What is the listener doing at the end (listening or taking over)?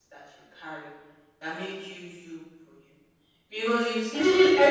taking over